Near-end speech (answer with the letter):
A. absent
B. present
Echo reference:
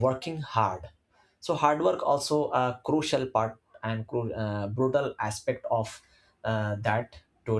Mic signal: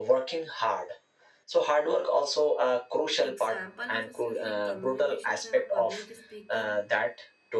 B